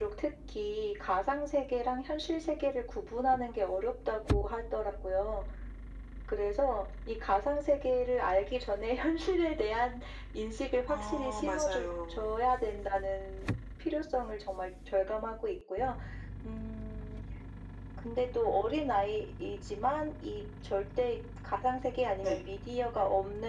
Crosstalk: present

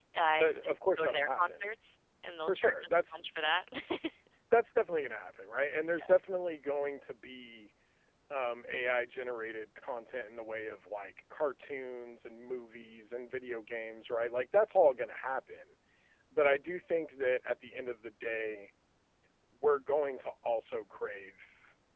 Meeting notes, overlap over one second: present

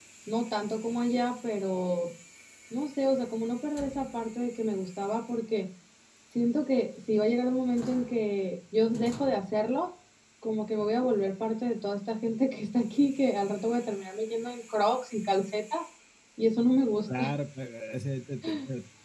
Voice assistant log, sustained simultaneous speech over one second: none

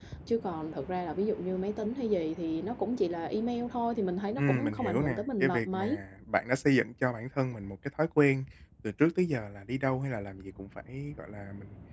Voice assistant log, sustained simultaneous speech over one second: present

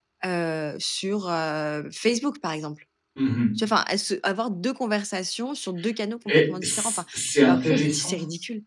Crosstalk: present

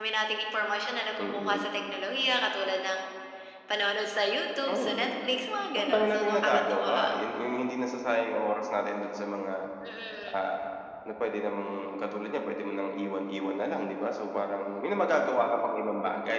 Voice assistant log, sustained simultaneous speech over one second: present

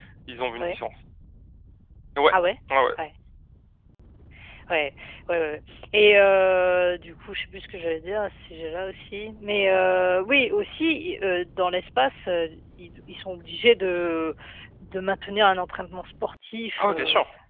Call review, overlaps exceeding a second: none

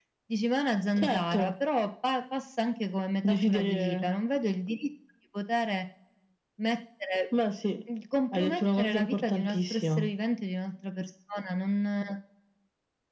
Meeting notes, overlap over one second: present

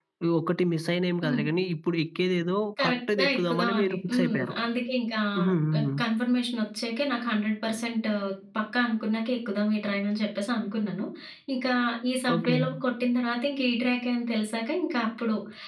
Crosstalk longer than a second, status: present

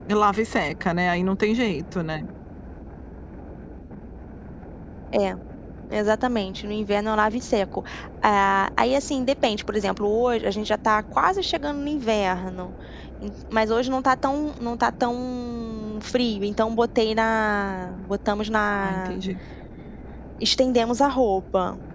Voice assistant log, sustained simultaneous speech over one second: none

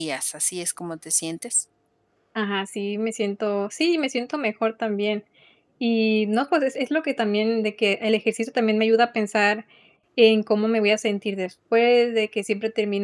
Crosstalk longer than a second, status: none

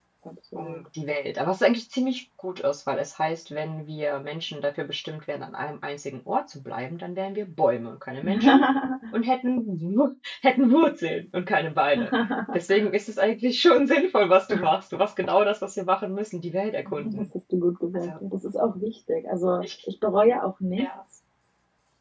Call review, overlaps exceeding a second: none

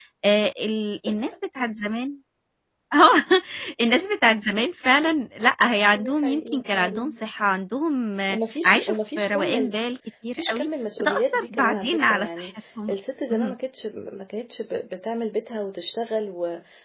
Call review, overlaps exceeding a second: present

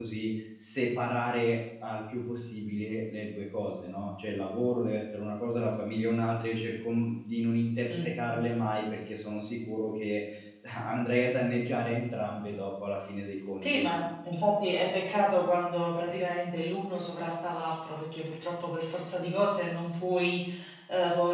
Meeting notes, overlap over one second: none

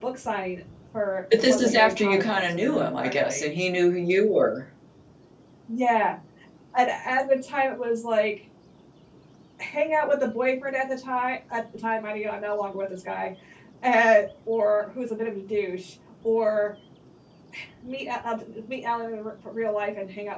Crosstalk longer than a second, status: present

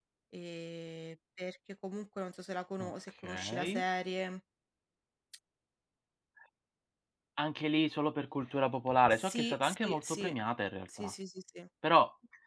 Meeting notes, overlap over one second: present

